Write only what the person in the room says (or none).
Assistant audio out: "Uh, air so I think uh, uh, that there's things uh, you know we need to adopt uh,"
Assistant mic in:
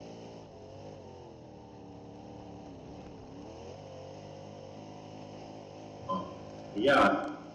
Uh, yeah,